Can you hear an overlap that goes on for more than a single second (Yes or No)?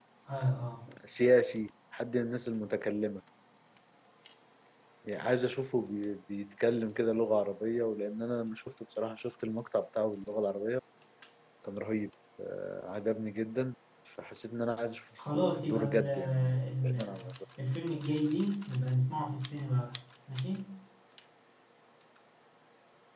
Yes